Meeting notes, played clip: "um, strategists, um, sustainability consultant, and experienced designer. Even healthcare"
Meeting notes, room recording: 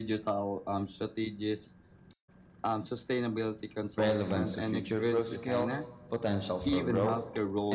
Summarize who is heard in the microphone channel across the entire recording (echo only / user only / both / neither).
both